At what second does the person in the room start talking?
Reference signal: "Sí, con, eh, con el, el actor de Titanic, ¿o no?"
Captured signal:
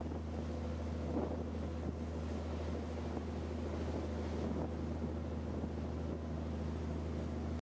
none

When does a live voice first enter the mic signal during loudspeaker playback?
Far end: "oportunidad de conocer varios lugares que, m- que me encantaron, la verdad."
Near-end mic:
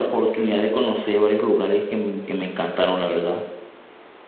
none

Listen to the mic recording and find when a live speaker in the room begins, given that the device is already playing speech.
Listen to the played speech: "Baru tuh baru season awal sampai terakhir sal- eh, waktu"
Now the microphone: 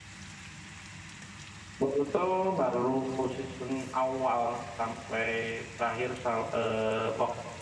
none

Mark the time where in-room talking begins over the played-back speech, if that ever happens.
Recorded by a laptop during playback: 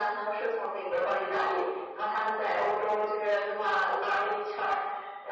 none

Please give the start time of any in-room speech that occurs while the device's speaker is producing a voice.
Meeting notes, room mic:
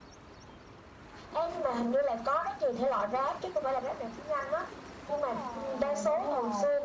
5 s

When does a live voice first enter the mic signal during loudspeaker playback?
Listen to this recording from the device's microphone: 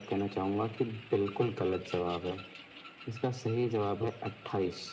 none

